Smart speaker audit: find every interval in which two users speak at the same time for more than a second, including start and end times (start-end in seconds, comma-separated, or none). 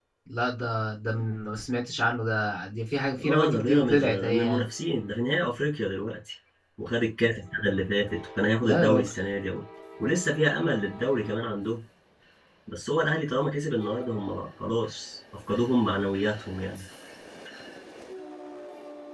3.2-4.7